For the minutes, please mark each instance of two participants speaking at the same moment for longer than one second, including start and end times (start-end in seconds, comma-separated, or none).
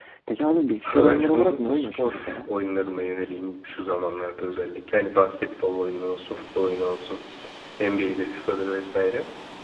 0.8-2.5